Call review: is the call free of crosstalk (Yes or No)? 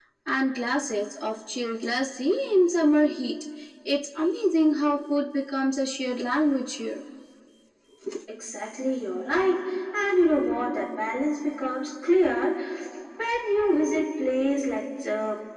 Yes